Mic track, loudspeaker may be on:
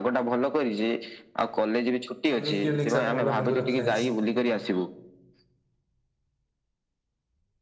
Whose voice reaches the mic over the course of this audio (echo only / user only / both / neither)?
both